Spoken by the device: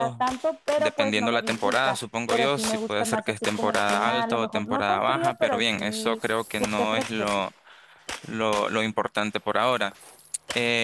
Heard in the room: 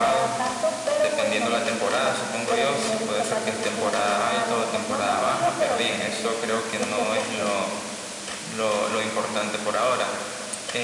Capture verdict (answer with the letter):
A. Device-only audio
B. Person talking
A